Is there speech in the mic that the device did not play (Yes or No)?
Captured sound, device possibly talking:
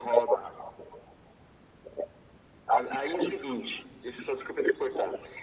No